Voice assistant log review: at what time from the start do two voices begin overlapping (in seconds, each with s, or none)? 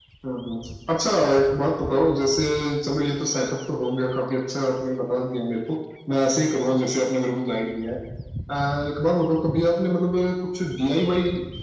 none